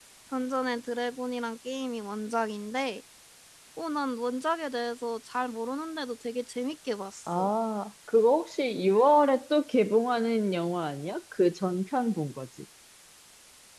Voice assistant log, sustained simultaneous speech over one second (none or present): none